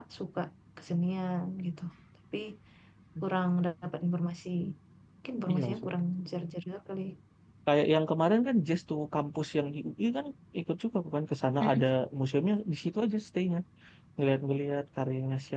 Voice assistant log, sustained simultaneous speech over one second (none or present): none